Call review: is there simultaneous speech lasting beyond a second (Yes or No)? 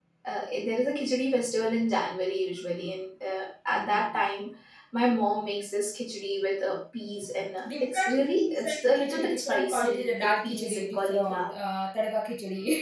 Yes